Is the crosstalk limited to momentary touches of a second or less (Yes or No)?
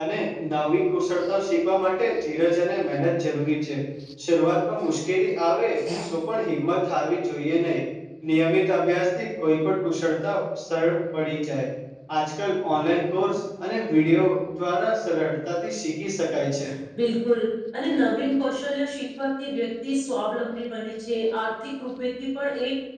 Yes